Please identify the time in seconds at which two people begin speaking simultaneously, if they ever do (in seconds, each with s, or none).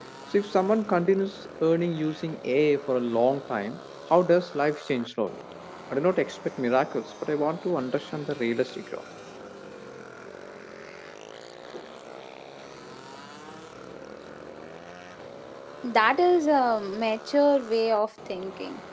none